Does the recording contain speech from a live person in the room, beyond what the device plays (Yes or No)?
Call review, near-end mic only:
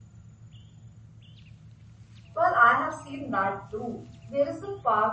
Yes